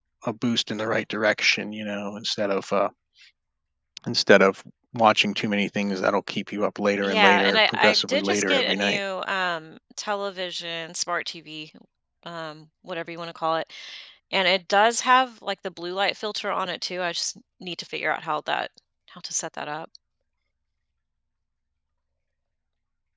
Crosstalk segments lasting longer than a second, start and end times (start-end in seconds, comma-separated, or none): 7.0-9.0